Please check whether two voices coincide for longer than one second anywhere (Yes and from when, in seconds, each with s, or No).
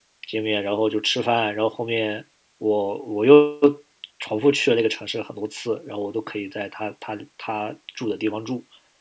No